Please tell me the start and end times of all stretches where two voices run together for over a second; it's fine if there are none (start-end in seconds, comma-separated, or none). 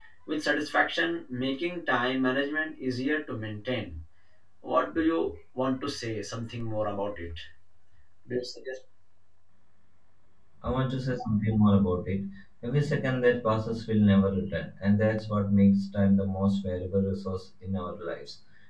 none